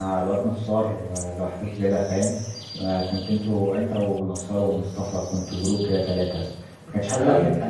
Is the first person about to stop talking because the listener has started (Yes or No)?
No